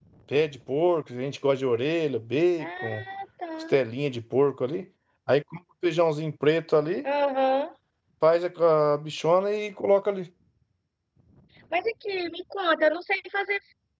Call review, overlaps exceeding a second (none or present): none